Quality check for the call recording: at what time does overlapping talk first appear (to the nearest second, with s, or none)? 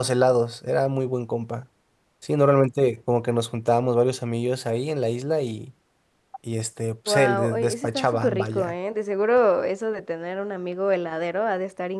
7 s